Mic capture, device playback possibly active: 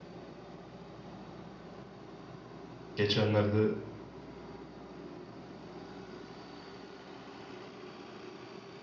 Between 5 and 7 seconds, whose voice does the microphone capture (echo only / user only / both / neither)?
neither